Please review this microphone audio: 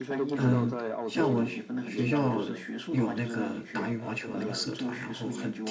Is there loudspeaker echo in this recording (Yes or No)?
Yes